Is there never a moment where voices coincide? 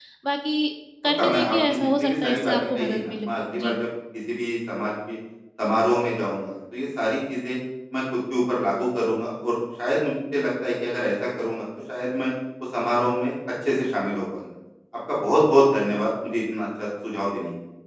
No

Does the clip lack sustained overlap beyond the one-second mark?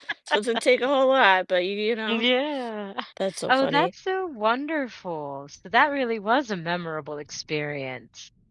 Yes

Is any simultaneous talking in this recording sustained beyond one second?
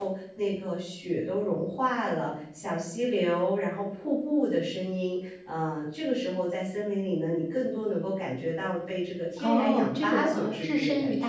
Yes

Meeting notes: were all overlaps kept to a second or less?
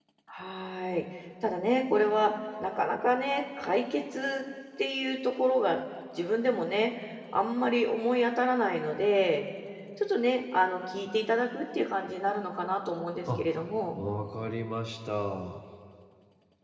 Yes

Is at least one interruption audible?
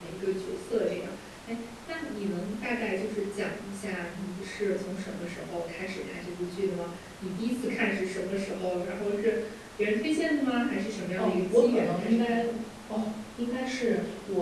Yes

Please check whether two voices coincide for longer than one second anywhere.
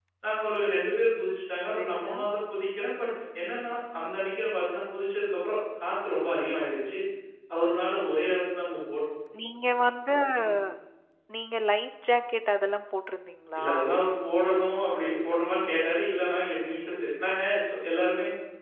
No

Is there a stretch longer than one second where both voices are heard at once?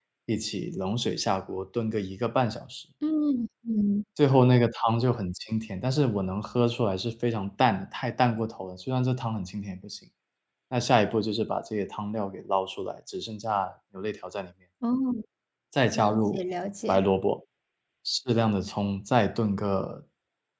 No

